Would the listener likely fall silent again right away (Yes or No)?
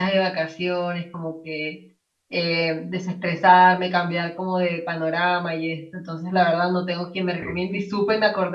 Yes